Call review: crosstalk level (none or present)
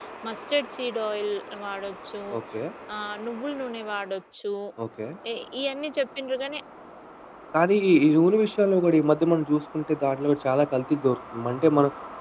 none